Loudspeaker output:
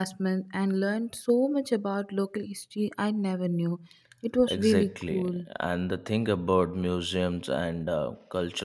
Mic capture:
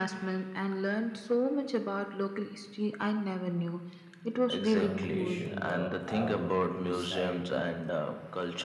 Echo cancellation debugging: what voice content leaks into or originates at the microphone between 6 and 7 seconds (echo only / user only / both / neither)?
both